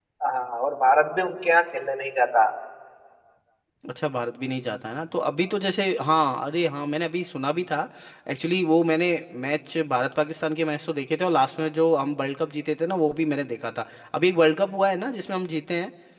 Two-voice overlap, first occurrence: none

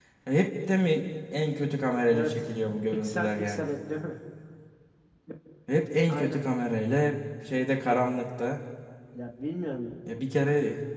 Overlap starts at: 2.1 s

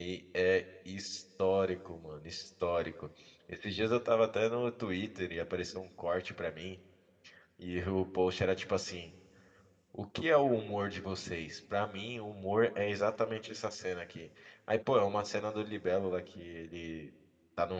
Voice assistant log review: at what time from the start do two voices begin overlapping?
none

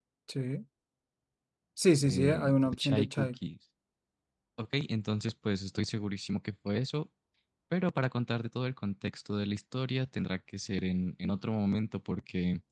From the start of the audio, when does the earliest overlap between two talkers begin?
2.0 s

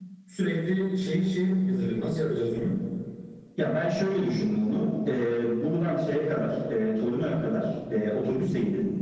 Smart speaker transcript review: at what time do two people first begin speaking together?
none

